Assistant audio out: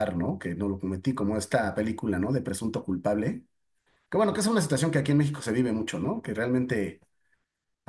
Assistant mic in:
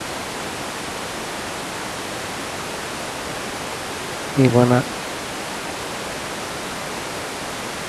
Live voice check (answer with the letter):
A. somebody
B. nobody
A